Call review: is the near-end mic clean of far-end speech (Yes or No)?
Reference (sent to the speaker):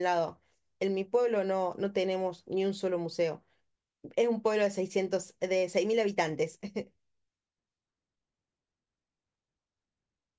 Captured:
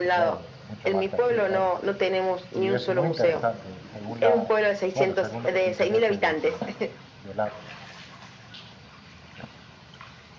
No